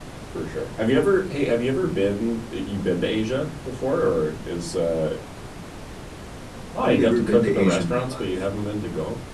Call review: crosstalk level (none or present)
present